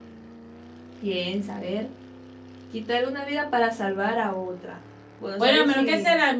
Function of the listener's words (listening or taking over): taking over